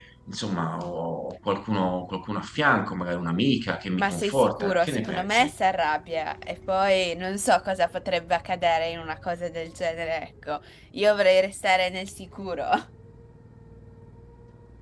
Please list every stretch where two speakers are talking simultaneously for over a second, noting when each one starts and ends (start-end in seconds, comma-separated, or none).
4.0-5.5